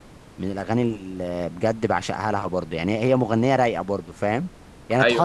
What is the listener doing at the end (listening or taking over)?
listening